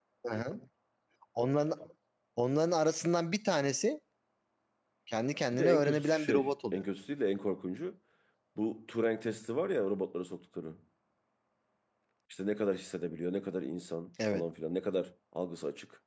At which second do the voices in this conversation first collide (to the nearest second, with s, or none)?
6 s